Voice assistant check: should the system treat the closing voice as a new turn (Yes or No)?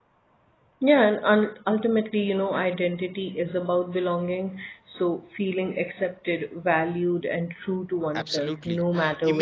Yes